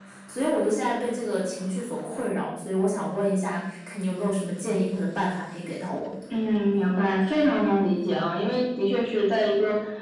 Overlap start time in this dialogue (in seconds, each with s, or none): none